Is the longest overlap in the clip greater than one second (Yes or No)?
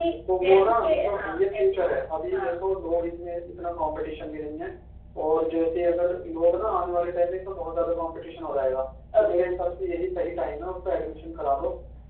Yes